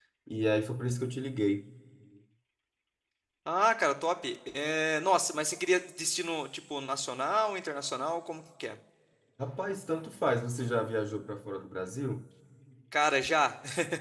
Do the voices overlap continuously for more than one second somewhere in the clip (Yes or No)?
No